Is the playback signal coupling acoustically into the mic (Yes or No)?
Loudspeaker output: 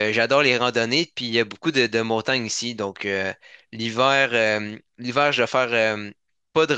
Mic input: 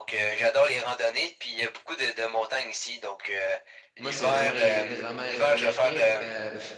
Yes